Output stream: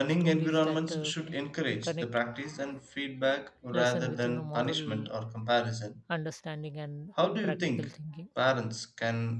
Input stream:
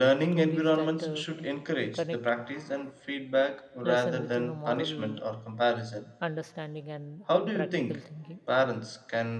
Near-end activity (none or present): none